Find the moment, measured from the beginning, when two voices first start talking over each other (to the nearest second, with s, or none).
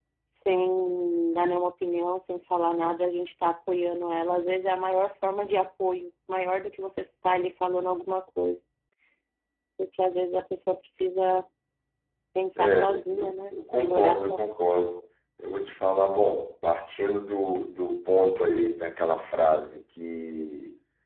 13 s